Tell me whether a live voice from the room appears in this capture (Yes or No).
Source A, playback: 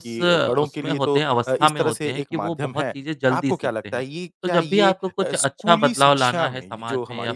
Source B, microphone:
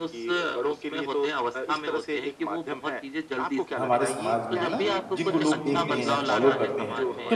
Yes